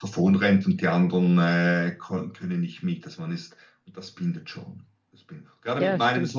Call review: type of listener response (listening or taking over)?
listening